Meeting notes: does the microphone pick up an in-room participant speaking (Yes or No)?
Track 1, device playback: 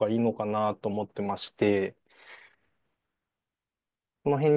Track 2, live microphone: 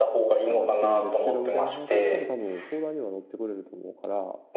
Yes